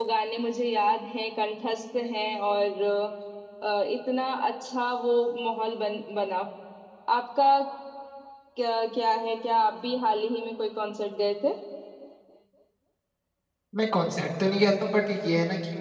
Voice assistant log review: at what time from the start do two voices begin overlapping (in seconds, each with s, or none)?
none